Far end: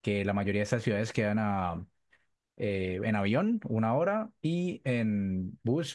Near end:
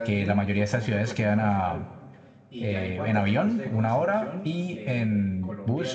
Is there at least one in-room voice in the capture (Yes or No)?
Yes